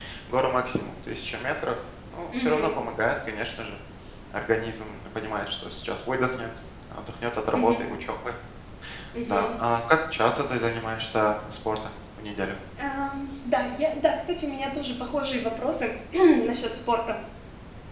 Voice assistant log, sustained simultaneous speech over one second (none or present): none